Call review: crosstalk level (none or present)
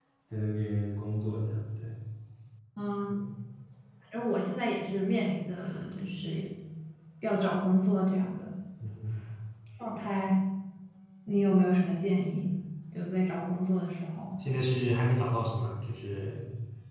none